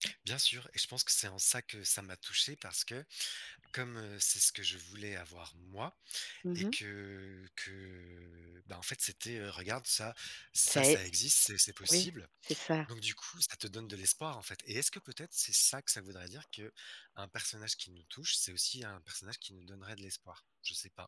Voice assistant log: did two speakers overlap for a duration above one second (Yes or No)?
No